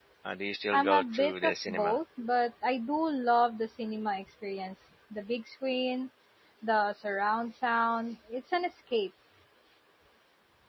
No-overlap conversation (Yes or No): No